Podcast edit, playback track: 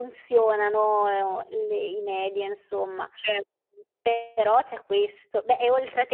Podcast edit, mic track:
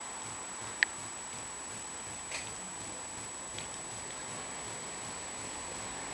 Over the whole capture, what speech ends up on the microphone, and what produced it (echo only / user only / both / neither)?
neither